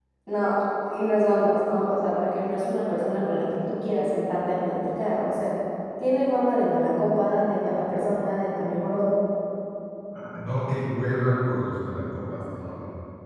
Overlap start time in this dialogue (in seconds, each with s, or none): none